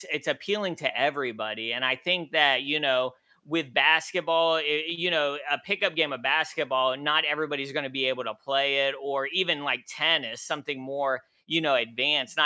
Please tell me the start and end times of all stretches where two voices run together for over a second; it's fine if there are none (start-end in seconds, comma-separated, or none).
none